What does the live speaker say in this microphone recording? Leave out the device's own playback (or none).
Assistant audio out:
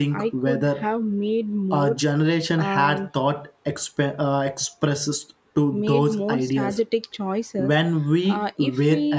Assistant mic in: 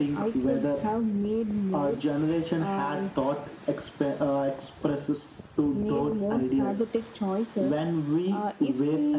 none